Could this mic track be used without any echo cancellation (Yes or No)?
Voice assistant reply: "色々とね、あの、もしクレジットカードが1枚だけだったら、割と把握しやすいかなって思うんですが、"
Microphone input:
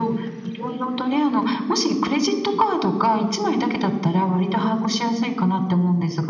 No